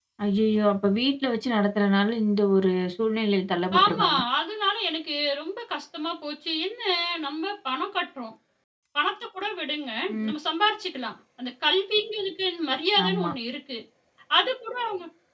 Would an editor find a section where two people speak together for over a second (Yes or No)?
No